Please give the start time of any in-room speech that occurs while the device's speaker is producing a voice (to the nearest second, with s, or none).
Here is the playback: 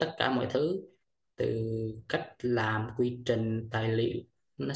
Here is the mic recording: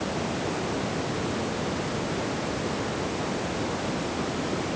none